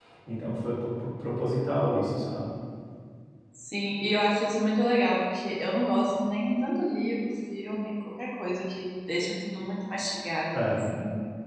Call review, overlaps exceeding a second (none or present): none